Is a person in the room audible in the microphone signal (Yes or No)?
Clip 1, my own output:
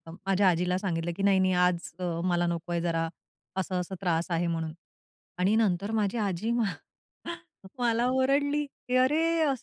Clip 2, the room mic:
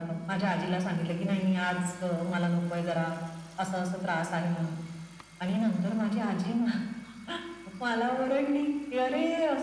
No